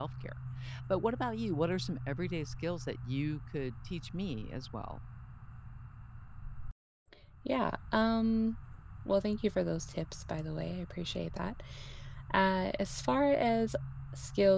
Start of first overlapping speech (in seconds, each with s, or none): none